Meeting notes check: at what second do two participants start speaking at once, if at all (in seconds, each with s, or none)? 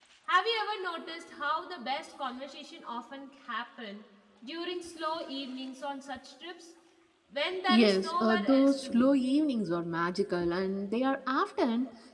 7.7 s